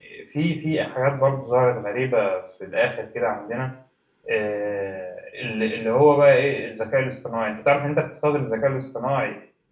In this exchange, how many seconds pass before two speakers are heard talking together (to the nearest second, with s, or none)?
none